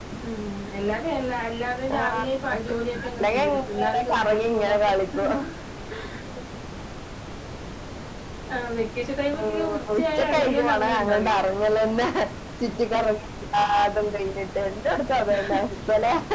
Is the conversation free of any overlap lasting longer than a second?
No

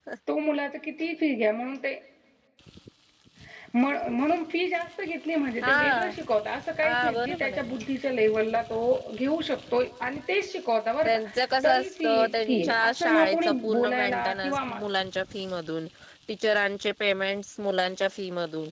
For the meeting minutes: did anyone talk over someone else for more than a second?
Yes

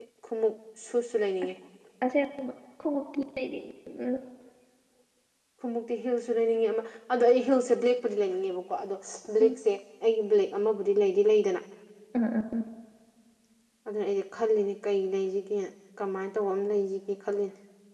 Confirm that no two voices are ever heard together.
Yes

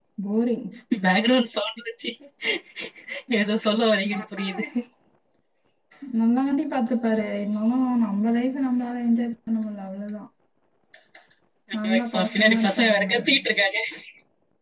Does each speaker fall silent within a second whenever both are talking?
No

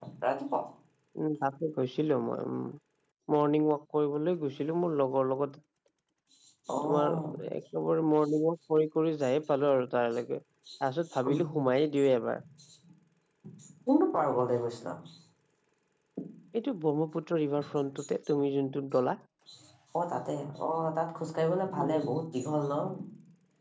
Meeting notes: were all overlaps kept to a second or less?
Yes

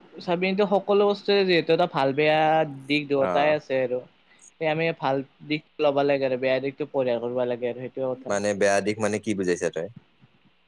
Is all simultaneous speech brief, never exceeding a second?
Yes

